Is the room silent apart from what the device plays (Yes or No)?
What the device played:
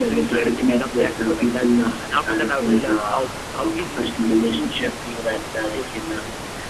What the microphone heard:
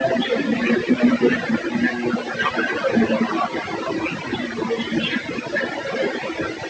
Yes